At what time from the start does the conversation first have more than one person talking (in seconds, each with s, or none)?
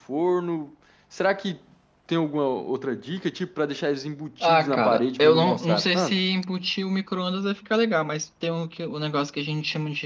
4.4 s